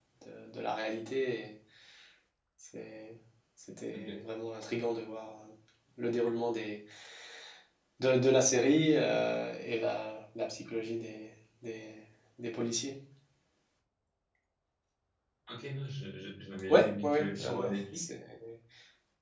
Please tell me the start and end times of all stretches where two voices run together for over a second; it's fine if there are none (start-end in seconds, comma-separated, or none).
16.7-18.0